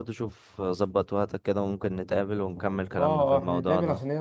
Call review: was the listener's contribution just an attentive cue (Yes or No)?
No